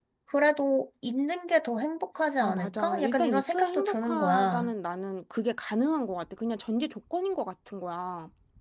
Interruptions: present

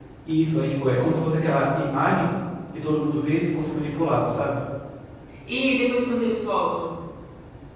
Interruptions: none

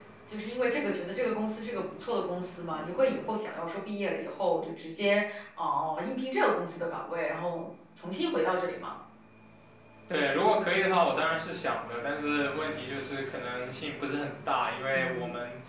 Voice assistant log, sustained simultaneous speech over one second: none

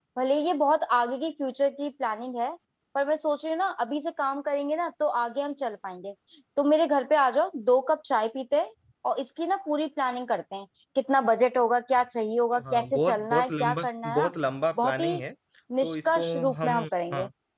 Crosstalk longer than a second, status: present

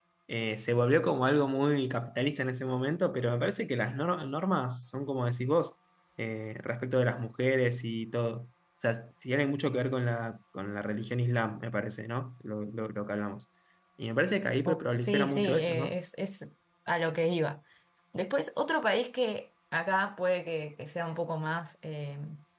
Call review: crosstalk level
present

